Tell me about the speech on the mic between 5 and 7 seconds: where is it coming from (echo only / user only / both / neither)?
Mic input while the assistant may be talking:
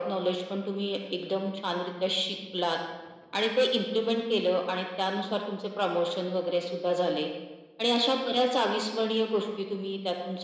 echo only